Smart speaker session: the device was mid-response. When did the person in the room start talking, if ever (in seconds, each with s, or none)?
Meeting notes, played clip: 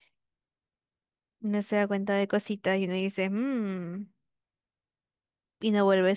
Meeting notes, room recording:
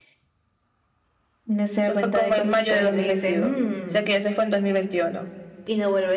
1.8 s